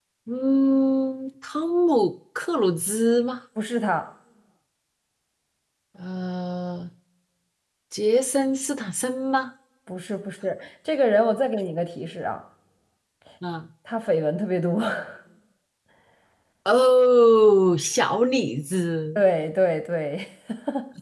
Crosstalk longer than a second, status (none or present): none